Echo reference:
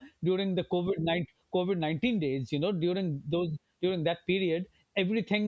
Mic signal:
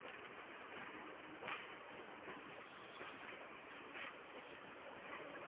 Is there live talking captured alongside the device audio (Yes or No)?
No